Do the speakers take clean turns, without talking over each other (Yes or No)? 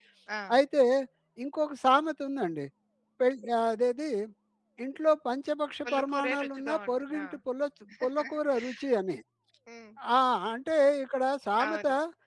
No